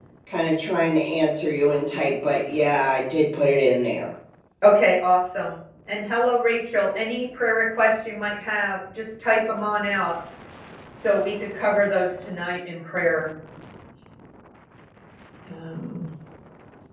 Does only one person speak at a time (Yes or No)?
Yes